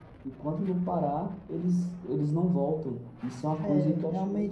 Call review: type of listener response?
taking over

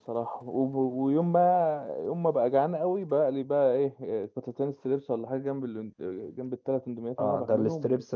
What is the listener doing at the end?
taking over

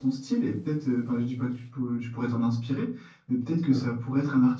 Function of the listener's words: listening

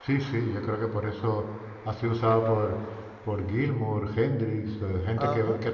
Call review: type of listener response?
listening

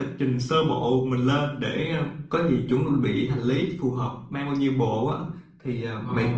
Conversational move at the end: listening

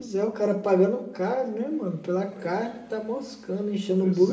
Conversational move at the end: taking over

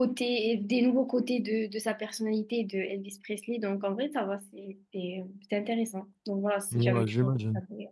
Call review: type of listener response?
taking over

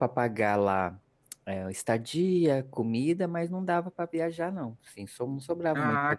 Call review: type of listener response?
taking over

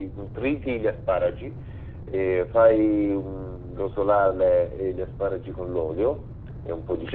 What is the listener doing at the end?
listening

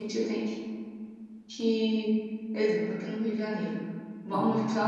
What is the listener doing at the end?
listening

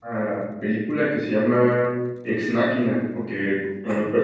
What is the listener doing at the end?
listening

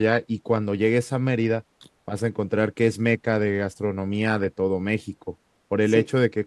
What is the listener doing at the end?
listening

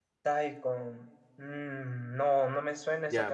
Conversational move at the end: taking over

